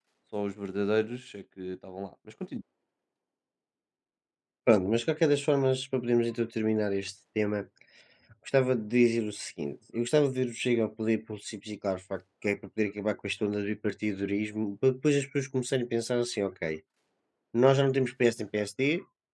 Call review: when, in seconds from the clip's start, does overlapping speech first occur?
none

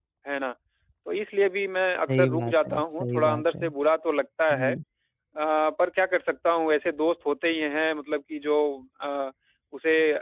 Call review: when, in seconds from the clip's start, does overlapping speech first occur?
2 s

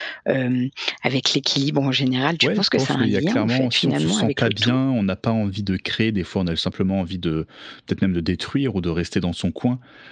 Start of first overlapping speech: 2 s

